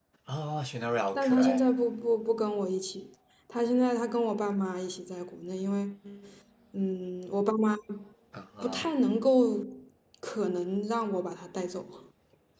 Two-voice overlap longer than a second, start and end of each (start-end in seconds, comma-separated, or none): none